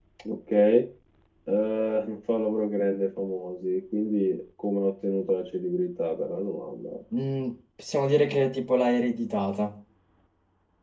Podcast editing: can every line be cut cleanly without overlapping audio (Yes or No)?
Yes